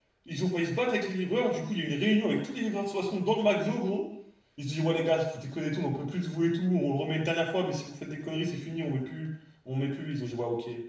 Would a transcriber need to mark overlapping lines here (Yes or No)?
No